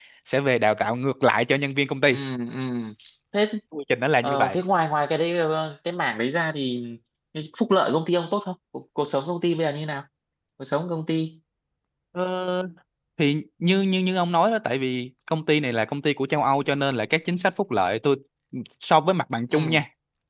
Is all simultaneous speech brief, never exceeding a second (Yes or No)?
Yes